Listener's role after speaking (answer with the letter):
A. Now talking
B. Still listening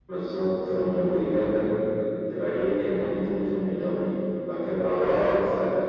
B